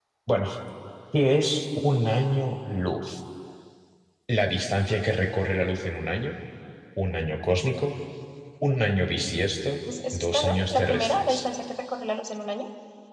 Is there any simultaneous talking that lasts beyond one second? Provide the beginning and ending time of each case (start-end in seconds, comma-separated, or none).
10.1-11.4